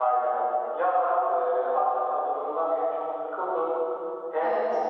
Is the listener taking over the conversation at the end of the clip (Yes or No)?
No